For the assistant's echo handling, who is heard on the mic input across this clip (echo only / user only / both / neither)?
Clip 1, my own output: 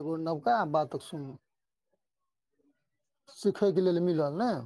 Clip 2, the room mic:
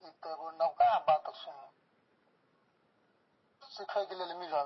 echo only